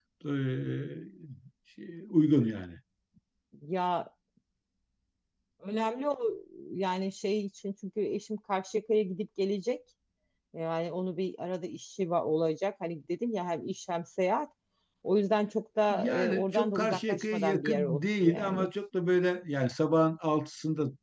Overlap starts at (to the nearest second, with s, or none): 16 s